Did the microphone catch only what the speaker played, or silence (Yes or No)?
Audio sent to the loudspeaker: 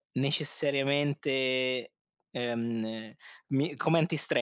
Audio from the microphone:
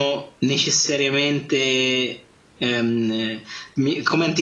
Yes